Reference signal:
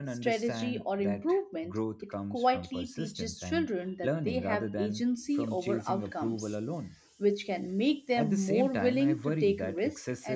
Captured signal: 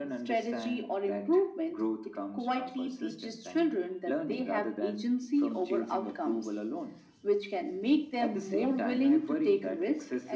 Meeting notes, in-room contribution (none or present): none